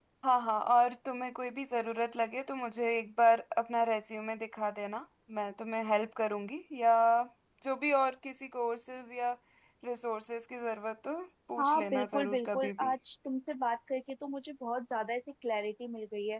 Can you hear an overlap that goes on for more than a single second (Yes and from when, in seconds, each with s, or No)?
Yes, from 11.6 s